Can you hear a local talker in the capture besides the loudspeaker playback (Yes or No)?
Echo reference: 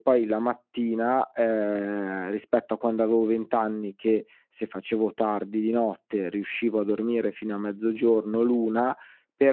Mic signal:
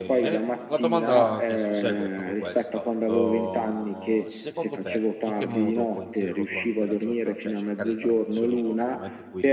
Yes